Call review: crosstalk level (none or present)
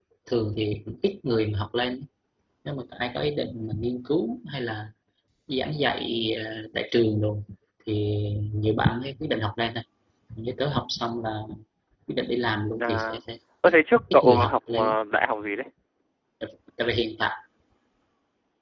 present